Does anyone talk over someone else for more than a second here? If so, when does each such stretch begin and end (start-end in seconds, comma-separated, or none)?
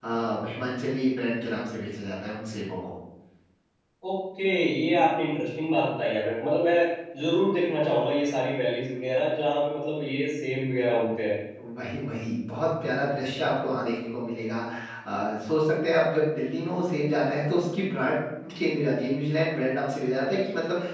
none